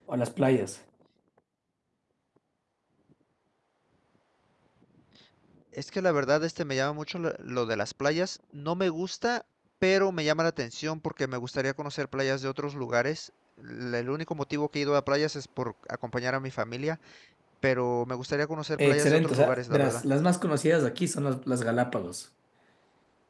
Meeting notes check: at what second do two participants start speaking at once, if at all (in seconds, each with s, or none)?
18.8 s